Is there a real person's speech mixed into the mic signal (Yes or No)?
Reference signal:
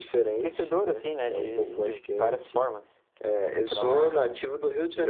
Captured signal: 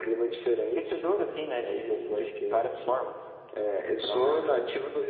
No